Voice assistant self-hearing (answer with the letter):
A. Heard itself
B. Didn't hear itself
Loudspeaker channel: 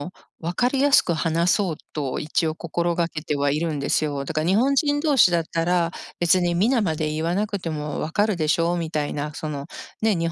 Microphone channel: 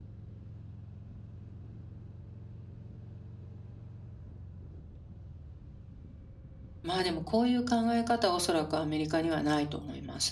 B